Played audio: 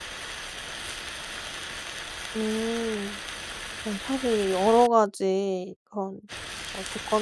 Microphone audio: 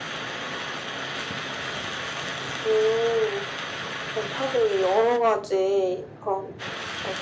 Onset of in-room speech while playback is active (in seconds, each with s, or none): none